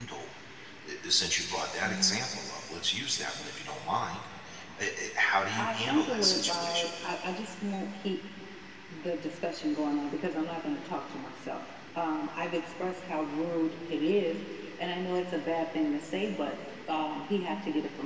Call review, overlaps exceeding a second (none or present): present